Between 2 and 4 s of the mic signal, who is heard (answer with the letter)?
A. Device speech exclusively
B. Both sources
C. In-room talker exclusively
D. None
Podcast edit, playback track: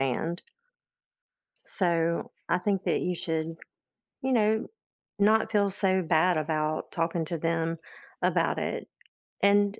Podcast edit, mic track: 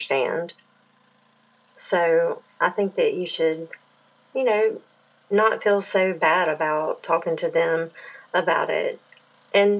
A